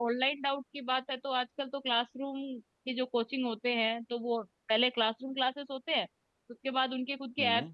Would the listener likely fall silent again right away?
Yes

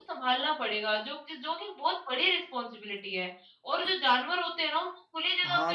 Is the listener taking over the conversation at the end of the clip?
No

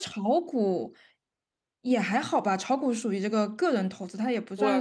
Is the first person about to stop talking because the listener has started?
Yes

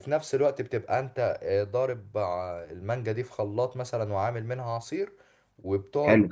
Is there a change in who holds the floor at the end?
No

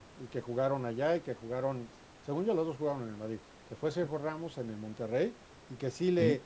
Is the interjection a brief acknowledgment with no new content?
Yes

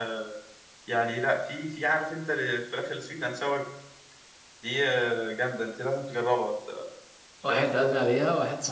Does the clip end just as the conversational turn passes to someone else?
Yes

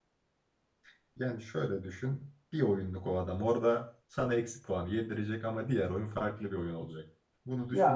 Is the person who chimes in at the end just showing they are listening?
Yes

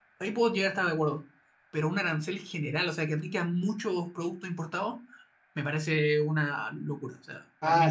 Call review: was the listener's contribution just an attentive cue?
No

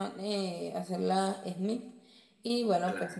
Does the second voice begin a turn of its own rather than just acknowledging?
No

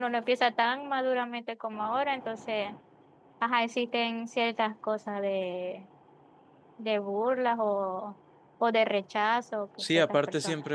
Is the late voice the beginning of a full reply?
Yes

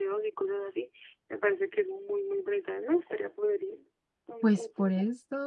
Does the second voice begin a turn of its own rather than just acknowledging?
Yes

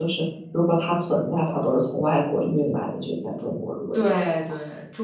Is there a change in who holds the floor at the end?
Yes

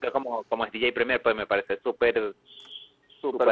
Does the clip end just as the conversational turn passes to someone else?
Yes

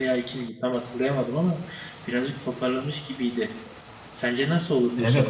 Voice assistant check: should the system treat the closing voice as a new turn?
Yes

